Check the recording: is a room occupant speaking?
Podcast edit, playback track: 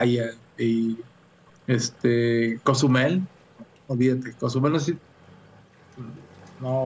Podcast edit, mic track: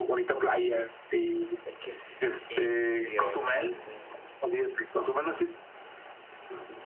Yes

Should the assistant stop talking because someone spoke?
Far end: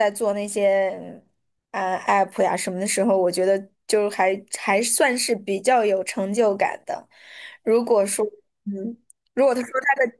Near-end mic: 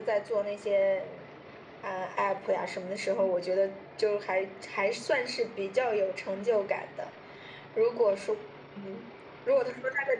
No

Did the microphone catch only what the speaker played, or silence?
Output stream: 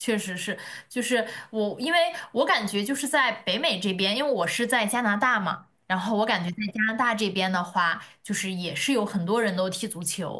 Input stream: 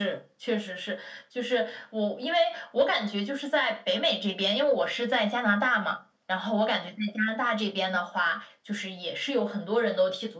Yes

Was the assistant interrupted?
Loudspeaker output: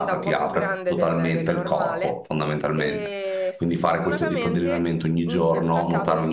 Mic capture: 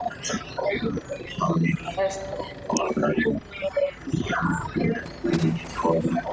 Yes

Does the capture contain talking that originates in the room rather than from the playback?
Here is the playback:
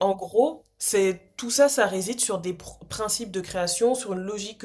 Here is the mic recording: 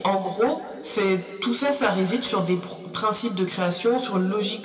No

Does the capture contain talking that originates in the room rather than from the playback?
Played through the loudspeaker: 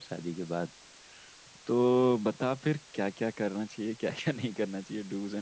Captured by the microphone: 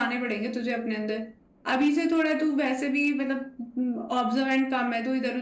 Yes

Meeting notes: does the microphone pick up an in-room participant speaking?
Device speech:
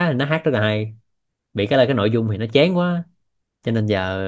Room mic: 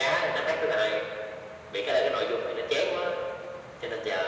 No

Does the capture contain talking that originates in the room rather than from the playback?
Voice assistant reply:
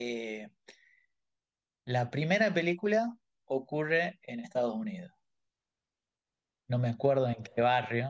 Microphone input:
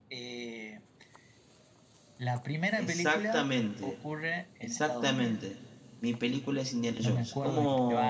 Yes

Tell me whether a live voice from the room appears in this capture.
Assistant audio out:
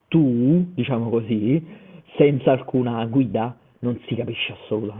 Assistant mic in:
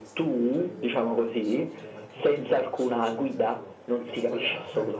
Yes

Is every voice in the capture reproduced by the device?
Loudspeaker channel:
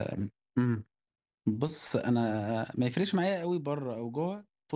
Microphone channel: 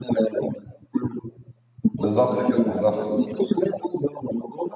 No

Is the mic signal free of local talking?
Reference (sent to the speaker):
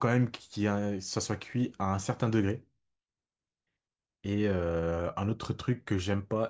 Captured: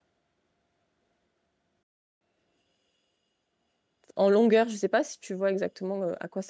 No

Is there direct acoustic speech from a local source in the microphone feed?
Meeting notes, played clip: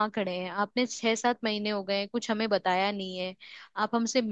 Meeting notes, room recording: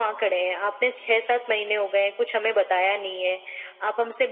No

